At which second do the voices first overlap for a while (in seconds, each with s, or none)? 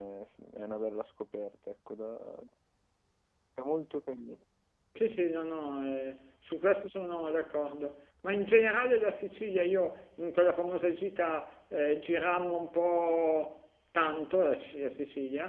none